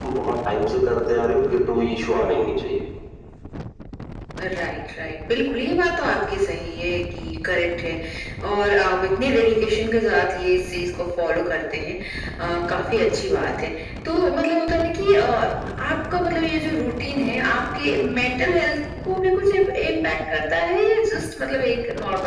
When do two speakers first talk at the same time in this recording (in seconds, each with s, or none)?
none